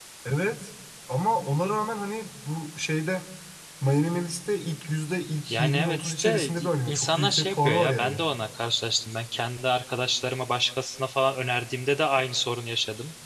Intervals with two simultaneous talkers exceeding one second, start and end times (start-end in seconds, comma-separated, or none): 5.5-8.2